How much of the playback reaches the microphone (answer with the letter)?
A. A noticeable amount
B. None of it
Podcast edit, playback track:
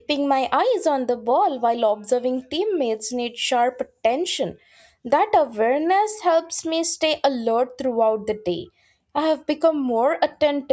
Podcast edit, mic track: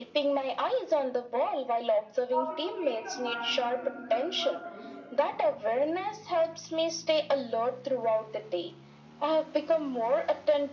A